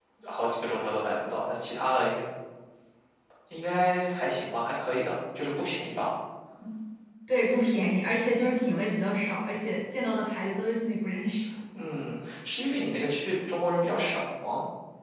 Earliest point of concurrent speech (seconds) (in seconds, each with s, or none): none